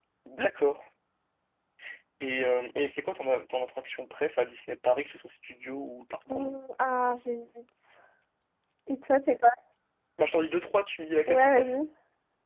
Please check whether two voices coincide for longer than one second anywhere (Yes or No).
No